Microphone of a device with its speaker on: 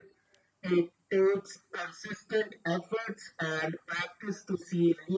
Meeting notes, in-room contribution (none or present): none